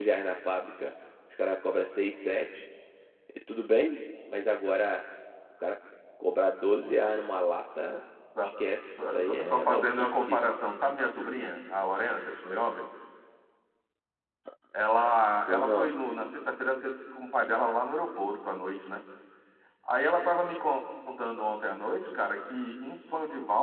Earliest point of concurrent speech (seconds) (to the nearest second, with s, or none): 9 s